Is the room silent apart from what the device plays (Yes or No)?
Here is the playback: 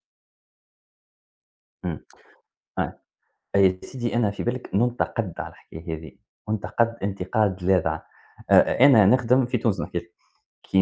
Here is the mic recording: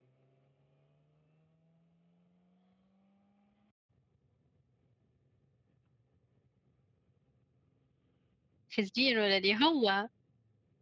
No